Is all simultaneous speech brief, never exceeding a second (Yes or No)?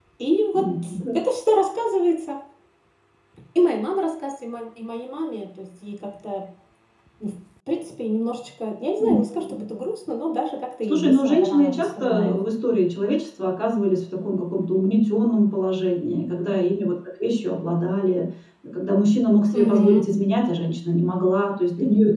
No